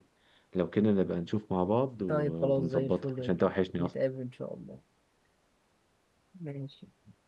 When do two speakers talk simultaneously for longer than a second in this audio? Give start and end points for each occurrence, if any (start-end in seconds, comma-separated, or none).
2.1-3.9